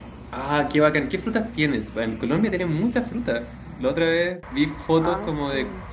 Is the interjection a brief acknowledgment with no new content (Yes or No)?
Yes